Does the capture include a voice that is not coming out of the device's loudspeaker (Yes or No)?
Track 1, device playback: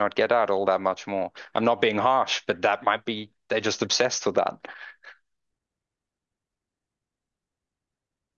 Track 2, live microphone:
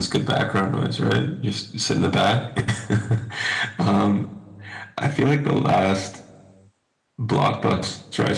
Yes